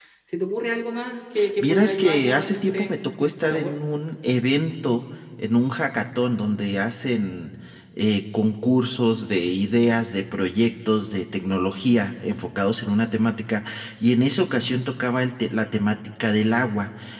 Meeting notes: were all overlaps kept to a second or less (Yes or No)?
No